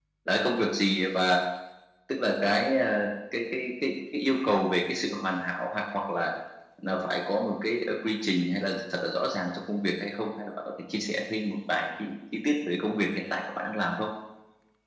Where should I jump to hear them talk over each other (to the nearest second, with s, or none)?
none